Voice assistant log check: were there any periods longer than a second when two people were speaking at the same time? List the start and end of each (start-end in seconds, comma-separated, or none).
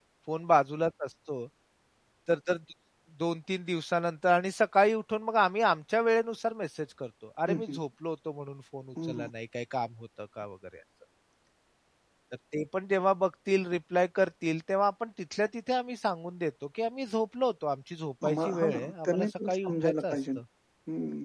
18.2-20.4